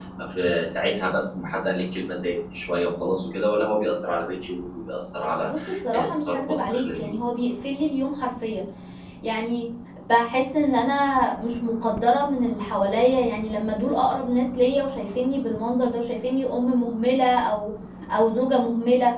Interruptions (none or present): present